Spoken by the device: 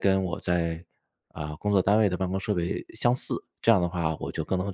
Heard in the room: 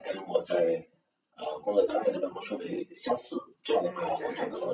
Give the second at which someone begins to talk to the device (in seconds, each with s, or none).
3.8 s